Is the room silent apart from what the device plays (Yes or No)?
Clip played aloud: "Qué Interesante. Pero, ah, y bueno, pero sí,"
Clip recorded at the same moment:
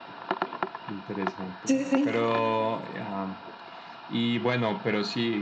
No